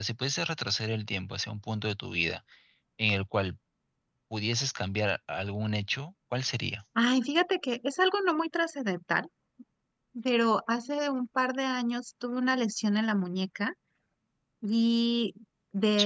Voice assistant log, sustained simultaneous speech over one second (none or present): none